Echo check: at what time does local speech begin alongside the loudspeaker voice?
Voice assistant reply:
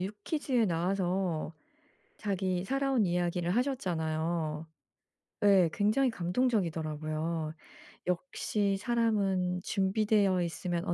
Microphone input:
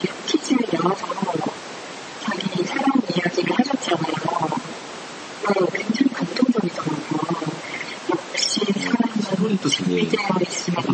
8.7 s

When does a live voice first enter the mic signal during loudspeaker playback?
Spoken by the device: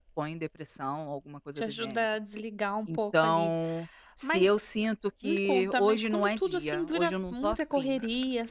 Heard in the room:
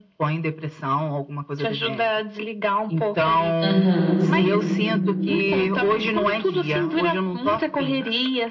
3.6 s

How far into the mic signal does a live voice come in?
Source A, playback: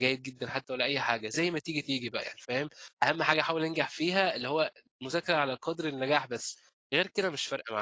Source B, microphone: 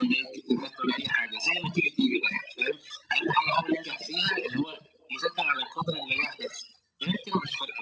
none

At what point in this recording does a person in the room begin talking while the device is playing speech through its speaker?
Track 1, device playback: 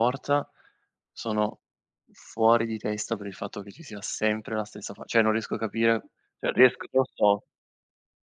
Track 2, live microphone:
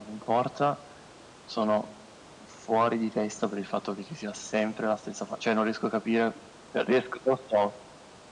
none

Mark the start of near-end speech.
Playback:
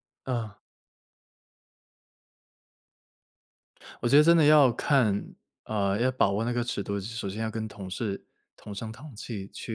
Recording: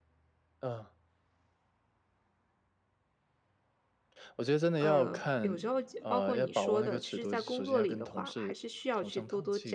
4.8 s

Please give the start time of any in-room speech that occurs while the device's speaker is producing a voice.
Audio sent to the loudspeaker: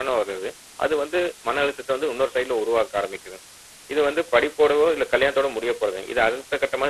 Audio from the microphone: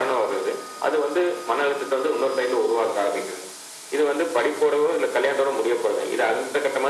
none

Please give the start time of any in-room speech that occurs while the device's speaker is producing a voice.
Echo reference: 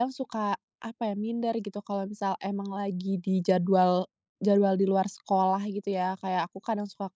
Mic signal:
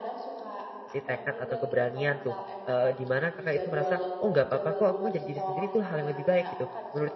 0.9 s

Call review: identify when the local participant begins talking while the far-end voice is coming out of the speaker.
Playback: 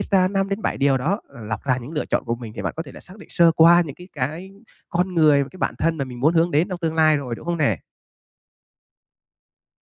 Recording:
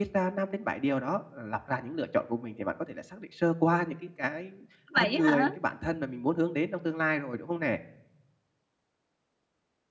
4.9 s

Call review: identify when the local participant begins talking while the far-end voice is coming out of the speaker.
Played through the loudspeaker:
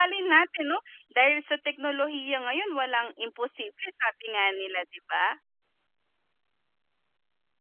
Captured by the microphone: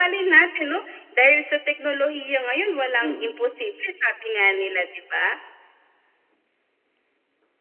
3.0 s

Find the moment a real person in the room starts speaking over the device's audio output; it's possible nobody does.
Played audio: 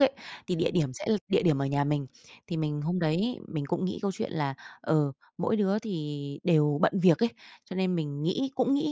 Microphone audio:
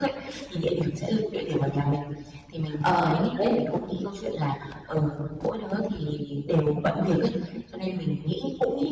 2.8 s

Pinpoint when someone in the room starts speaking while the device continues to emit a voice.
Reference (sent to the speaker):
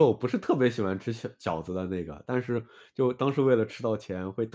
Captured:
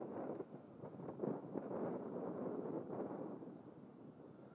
none

